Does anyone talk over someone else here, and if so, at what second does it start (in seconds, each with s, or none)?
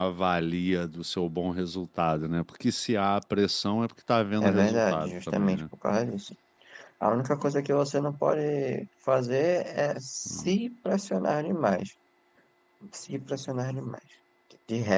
4.4 s